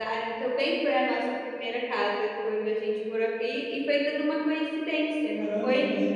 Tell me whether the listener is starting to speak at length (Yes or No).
Yes